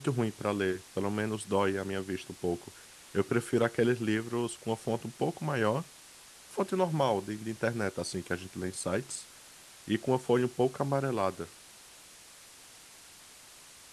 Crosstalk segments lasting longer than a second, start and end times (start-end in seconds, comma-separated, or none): none